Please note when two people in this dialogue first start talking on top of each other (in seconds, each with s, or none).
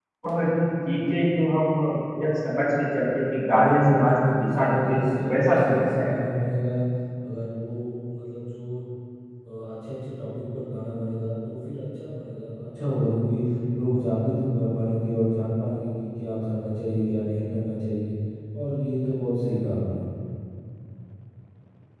3.6 s